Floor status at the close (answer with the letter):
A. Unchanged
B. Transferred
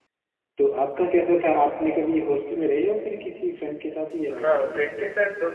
B